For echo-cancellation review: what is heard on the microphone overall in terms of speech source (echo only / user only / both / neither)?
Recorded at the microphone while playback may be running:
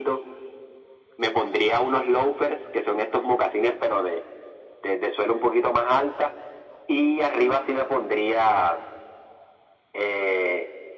echo only